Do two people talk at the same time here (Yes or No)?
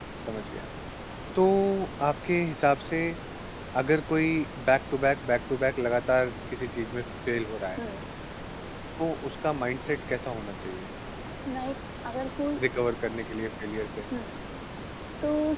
No